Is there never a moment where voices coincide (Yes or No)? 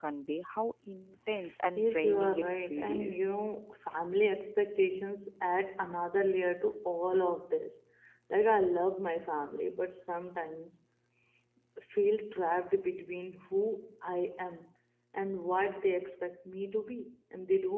No